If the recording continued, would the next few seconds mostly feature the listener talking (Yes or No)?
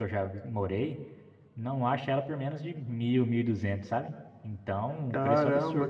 Yes